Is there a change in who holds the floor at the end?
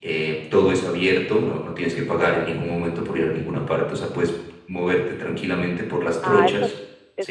Yes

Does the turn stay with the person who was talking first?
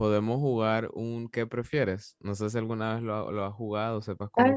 No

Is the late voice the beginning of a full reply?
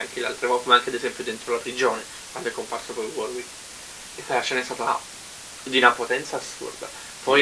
No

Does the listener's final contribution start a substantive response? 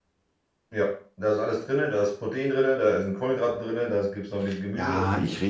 Yes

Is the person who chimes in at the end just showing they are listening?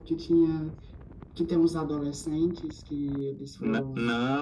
No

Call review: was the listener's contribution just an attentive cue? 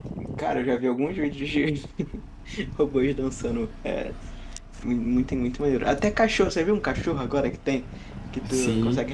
Yes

